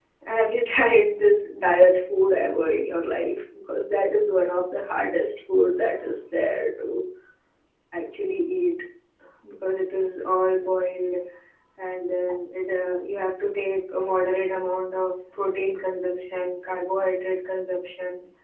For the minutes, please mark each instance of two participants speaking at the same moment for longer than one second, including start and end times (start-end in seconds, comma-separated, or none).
none